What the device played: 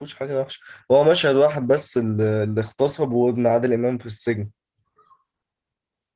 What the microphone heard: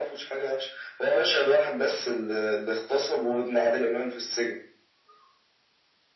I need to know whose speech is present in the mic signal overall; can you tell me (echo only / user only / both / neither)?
echo only